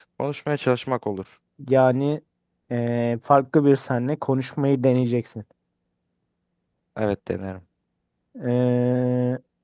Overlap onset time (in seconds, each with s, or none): none